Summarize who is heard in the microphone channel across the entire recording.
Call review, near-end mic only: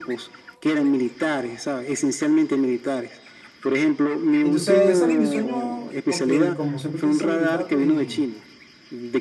both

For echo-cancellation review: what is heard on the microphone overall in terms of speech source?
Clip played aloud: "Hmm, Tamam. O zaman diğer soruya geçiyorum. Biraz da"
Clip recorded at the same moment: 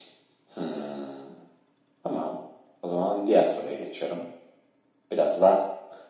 echo only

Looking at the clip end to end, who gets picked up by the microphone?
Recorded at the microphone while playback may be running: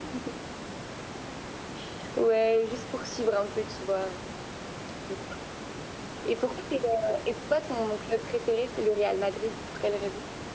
echo only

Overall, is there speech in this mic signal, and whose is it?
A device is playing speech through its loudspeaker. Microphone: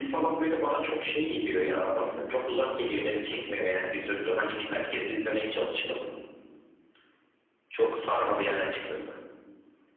echo only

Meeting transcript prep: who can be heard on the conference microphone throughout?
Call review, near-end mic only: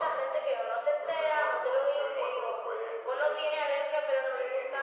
echo only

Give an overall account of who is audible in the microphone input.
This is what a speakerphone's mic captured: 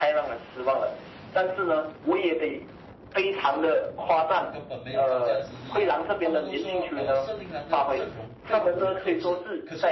both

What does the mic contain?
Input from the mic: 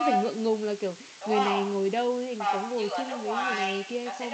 both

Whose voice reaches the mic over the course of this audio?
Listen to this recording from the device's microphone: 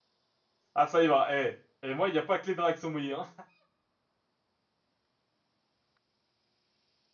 user only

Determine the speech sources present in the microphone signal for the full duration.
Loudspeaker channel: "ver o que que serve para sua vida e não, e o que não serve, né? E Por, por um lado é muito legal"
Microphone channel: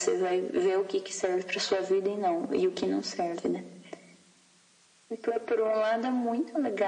echo only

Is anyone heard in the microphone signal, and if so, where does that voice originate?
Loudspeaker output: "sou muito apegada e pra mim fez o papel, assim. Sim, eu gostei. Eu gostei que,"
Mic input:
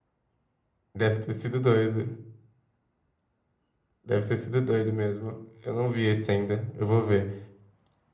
user only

